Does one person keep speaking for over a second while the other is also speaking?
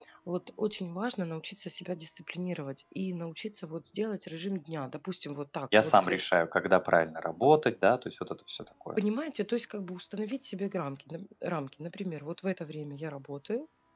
No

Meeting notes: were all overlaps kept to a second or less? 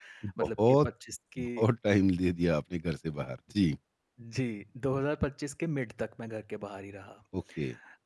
Yes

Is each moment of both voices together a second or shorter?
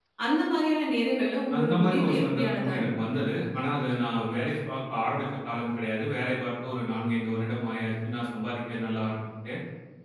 No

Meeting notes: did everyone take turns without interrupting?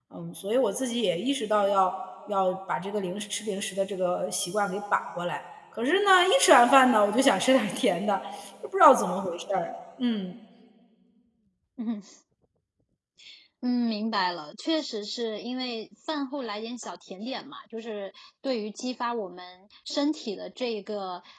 Yes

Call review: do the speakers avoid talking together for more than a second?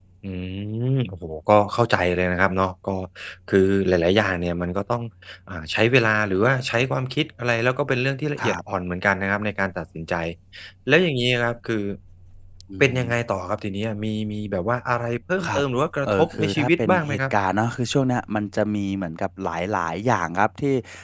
No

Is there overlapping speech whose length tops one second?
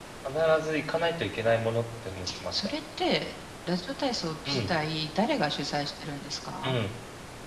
No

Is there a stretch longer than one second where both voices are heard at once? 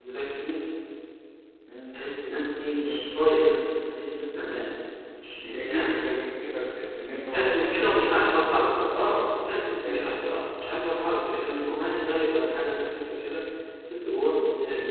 Yes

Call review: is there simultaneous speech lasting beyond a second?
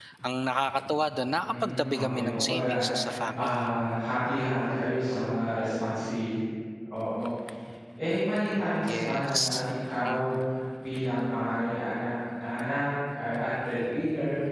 Yes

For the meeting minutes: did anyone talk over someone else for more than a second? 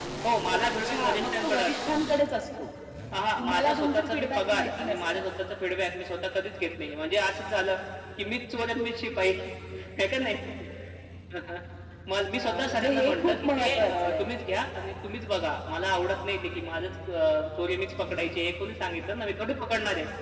Yes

